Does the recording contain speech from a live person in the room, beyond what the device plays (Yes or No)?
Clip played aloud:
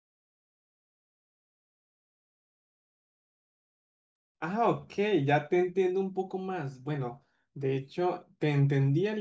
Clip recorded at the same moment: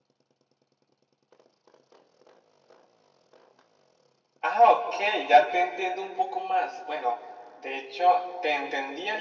No